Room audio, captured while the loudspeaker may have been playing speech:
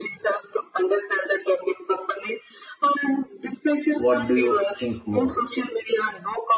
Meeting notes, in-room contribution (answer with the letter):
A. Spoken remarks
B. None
A